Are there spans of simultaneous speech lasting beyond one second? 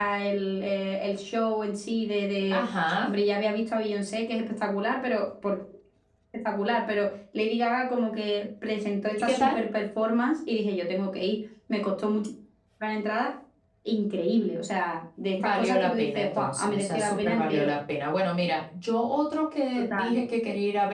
Yes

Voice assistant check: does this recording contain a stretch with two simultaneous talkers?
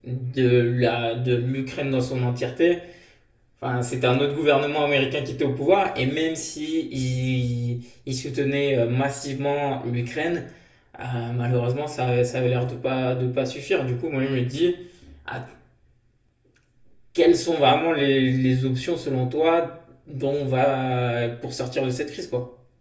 No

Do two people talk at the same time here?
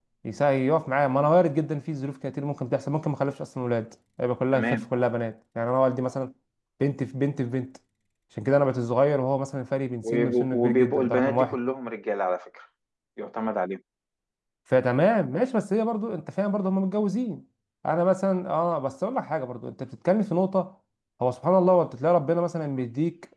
Yes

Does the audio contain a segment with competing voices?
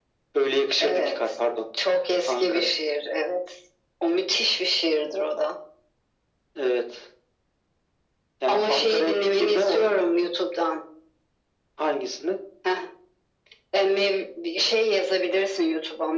Yes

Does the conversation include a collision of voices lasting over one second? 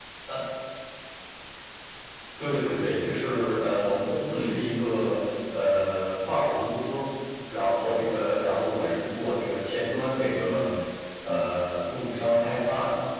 No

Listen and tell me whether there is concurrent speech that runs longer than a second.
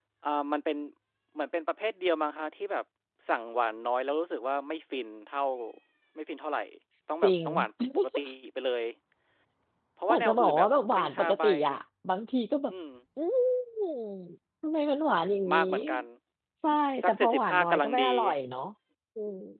Yes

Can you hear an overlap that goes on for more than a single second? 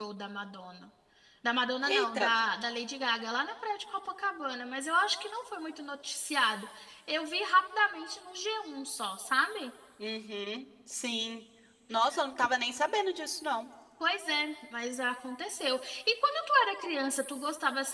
No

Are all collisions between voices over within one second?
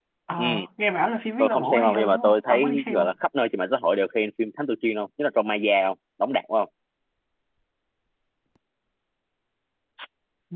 No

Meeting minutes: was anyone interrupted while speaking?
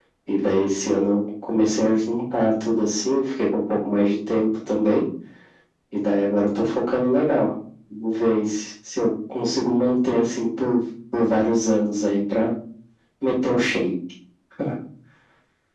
No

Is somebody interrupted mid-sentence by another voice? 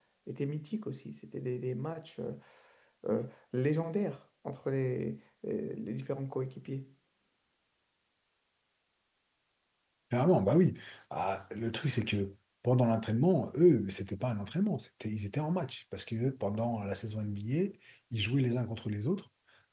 No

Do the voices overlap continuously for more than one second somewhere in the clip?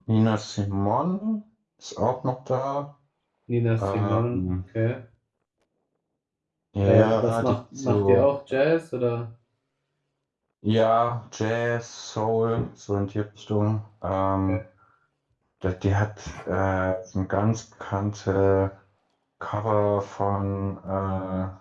Yes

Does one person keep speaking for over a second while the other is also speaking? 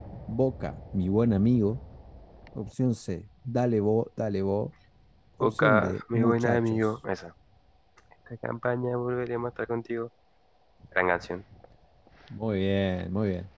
Yes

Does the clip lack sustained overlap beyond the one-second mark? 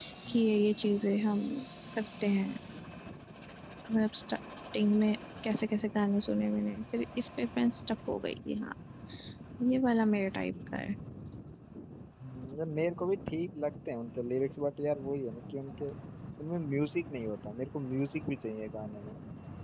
Yes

